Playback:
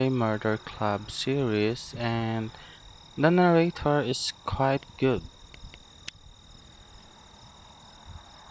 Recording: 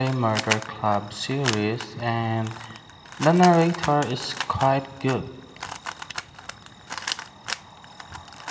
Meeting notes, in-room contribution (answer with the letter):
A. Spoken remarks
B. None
B